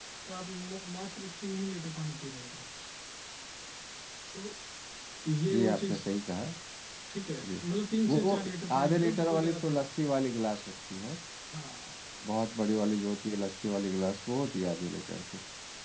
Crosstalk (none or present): present